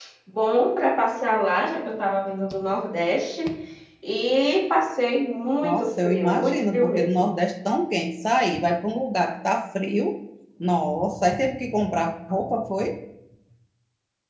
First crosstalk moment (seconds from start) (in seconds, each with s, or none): 5.6 s